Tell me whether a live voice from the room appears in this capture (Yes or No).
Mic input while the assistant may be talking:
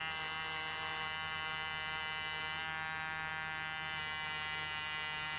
No